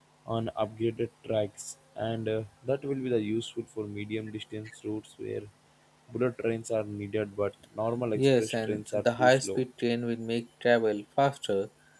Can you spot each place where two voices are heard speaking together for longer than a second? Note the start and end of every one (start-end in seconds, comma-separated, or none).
8.2-9.6